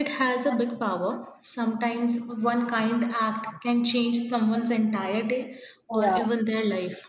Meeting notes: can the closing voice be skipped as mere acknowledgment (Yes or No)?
Yes